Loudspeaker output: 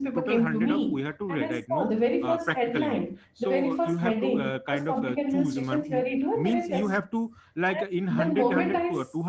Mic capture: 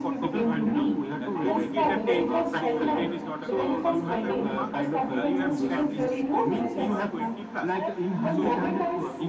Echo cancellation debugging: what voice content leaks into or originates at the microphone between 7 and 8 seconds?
both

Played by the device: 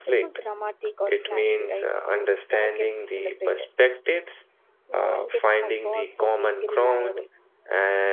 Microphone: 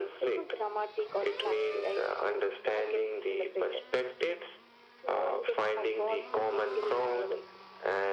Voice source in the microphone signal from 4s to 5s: echo only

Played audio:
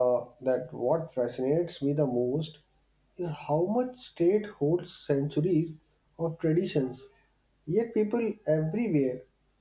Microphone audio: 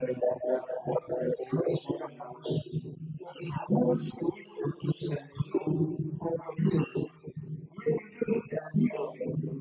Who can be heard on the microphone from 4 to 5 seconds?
echo only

